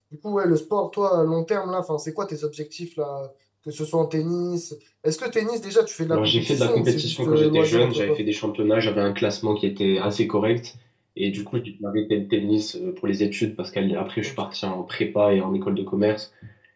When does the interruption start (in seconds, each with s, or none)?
6.1 s